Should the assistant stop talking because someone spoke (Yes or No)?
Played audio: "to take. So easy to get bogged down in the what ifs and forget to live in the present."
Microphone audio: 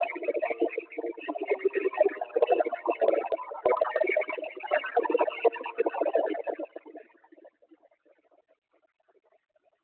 No